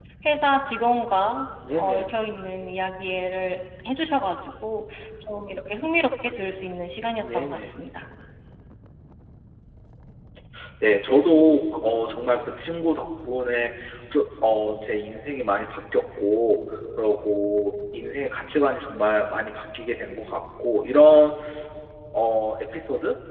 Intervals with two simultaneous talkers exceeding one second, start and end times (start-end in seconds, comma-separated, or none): none